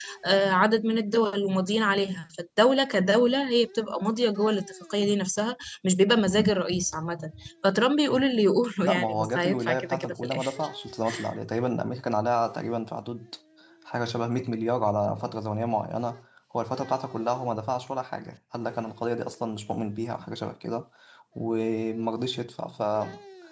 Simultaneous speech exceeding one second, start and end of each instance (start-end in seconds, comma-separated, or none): 8.8-10.5